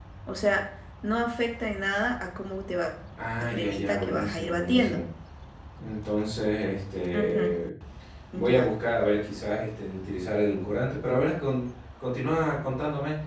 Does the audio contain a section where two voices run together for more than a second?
Yes, from 3.4 s

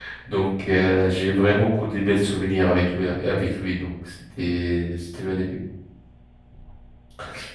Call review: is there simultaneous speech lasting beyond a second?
No

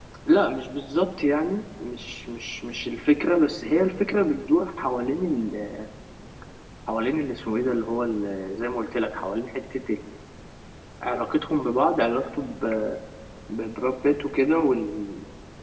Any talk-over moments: No

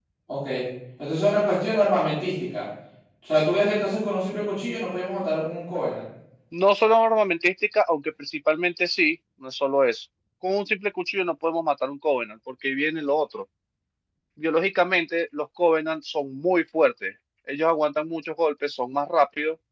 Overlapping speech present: No

